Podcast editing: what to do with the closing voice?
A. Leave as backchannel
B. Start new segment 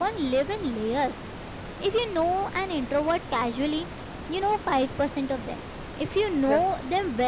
A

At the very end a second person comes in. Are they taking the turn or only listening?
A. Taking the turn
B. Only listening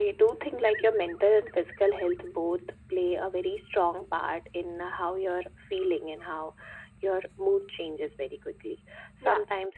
B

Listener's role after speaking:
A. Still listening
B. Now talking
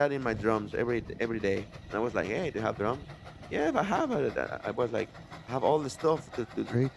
A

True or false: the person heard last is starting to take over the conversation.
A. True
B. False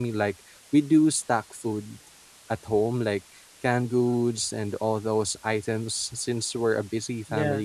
B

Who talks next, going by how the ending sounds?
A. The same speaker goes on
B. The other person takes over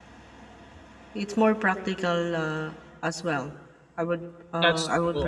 B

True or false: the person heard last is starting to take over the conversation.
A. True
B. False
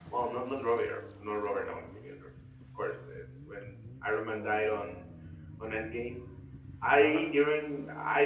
B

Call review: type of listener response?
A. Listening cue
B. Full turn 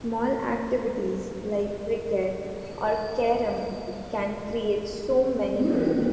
B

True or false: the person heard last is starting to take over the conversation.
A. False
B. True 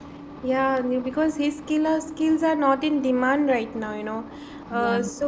A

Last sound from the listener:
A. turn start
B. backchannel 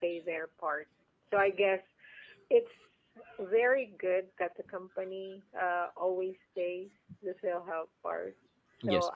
B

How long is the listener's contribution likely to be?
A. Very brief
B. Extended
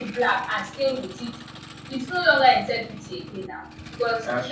A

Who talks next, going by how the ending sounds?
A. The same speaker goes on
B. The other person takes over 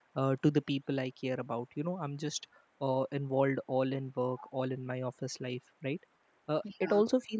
A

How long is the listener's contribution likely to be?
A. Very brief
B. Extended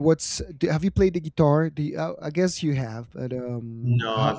B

